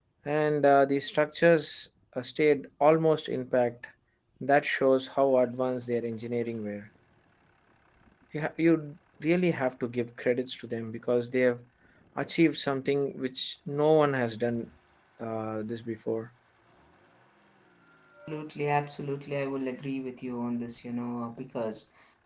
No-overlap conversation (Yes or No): Yes